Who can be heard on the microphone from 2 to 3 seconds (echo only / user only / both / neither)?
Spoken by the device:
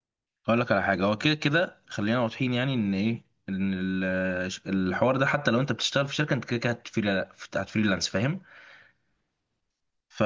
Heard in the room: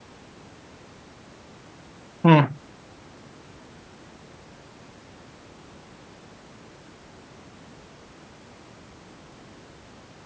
user only